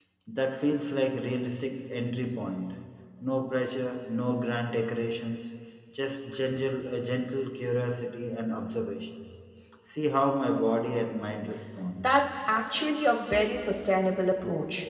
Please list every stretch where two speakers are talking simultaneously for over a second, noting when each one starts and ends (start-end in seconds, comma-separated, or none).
none